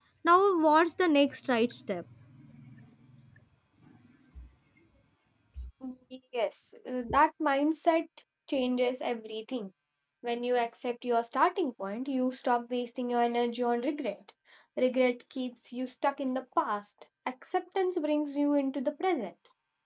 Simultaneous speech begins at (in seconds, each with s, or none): none